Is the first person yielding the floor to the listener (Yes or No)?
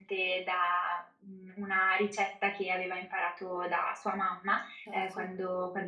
No